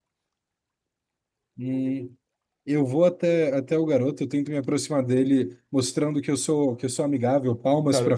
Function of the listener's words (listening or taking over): taking over